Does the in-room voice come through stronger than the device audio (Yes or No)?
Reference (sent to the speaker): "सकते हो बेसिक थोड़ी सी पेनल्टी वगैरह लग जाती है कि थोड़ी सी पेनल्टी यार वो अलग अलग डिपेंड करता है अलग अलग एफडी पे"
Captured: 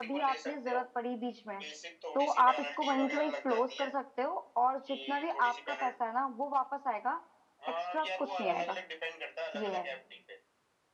Yes